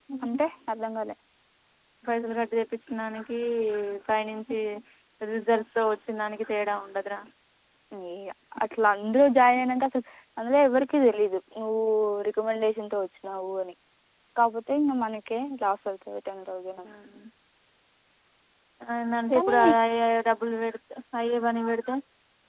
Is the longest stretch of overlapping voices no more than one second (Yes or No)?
Yes